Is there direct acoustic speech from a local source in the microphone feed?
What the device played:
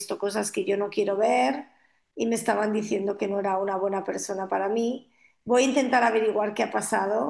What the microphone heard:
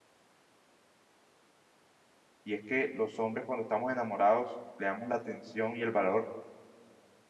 Yes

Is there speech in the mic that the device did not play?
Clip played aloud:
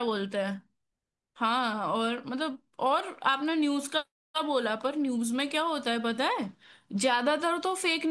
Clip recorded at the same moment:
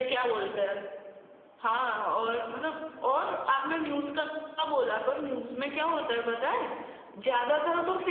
No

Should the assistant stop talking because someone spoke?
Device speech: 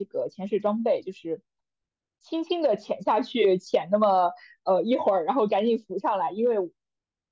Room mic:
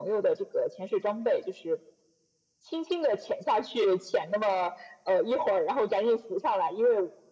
No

